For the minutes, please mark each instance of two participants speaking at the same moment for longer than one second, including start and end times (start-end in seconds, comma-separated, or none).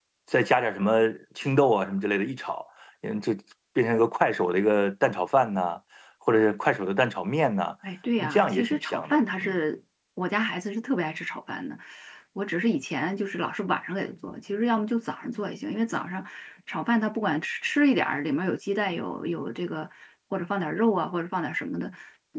8.2-9.6